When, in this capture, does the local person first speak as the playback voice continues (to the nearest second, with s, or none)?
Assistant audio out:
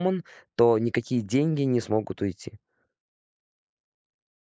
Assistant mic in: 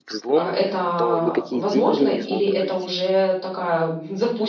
0 s